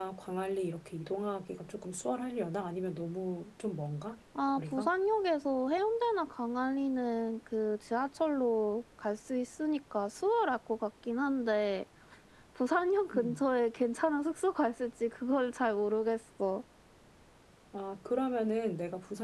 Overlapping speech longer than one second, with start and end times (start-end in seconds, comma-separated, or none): none